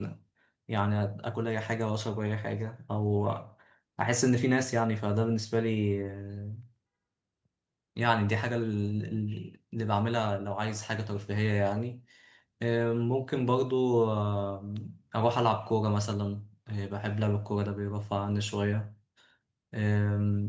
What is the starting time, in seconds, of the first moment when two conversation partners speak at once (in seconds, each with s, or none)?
none